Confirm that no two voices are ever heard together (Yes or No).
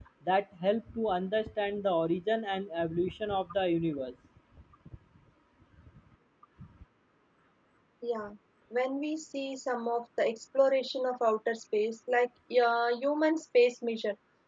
Yes